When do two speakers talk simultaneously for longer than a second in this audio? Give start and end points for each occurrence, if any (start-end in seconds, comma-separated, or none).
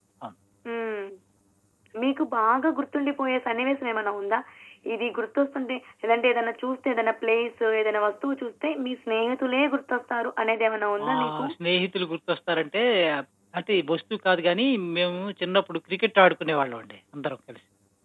none